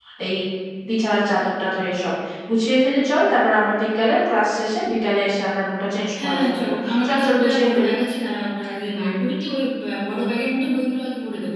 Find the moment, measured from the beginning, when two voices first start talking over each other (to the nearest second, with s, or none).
6 s